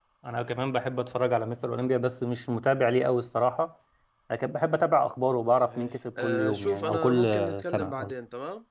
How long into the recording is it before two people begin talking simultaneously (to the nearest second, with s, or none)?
6 s